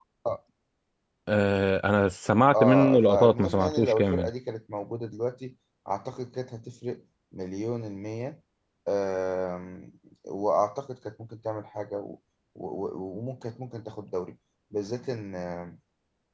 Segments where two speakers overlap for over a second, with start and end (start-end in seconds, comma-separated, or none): 2.5-4.3